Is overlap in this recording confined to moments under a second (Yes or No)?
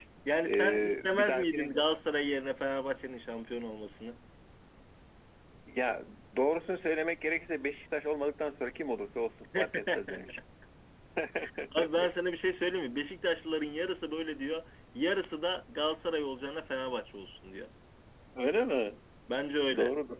No